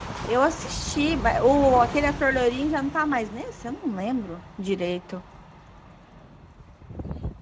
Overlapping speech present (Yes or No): No